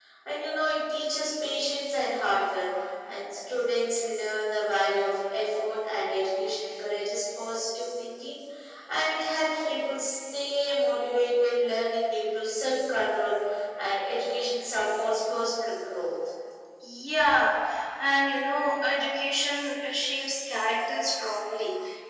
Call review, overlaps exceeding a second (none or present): none